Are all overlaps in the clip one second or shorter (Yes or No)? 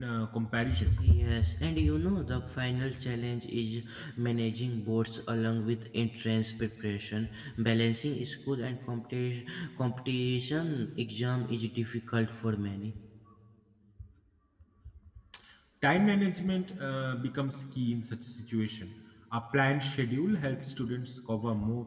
Yes